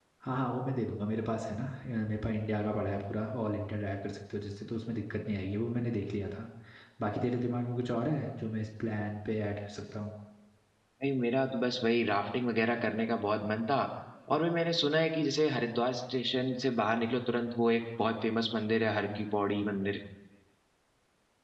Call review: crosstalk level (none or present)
none